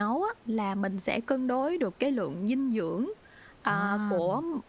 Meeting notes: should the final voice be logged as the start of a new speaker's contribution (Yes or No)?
No